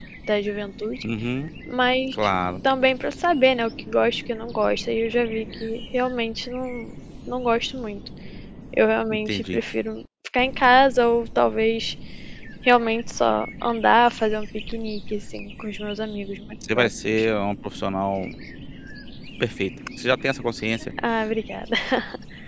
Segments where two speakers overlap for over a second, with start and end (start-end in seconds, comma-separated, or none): none